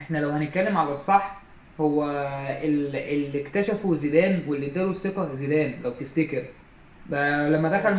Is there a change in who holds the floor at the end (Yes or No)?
No